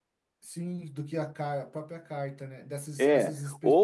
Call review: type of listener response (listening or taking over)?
taking over